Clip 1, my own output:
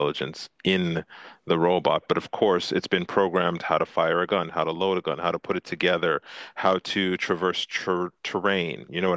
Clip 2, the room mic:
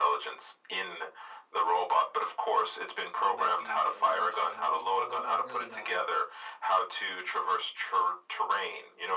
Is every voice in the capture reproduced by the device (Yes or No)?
No